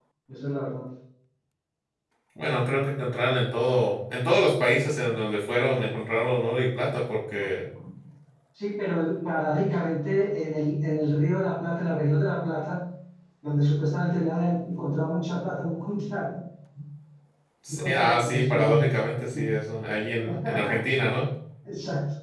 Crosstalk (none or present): present